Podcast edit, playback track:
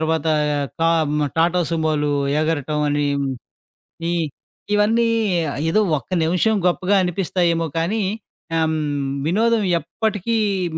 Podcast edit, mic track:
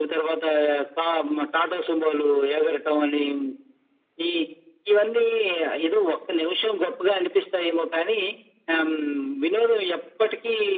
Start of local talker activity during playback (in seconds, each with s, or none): none